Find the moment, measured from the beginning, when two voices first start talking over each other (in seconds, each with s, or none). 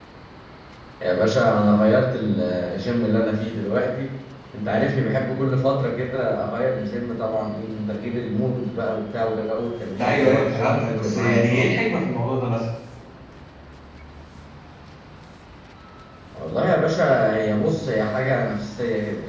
10.0 s